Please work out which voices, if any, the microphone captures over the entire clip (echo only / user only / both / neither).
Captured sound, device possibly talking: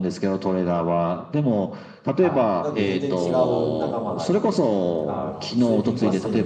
both